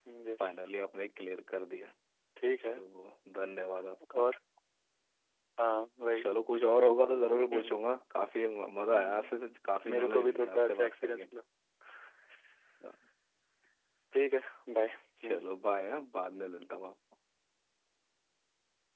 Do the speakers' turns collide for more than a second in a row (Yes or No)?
Yes